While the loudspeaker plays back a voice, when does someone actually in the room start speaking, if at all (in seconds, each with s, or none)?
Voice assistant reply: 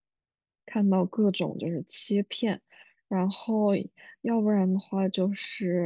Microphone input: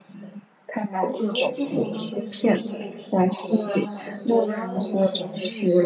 1.0 s